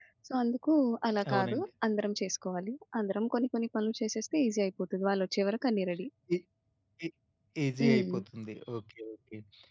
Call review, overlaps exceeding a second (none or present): none